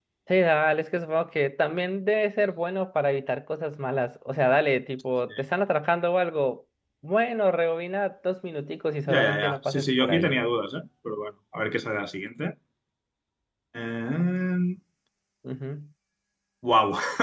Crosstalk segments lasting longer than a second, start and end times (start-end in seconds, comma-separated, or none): 9.1-10.4